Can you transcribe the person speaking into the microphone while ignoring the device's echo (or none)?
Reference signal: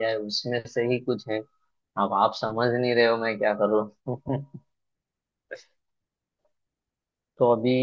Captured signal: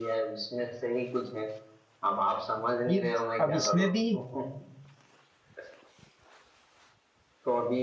ये अब इसमें भी